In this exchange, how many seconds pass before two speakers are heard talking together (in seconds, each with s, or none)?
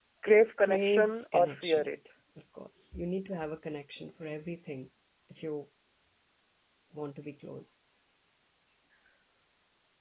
0.6 s